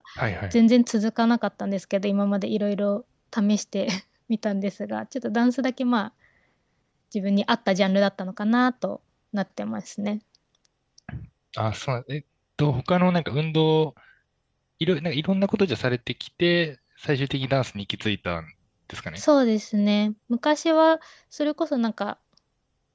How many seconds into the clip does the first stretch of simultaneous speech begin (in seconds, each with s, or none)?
none